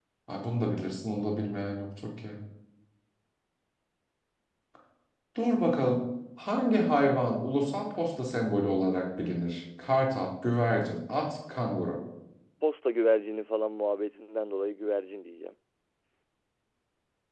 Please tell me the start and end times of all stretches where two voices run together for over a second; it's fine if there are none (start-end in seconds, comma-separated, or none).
none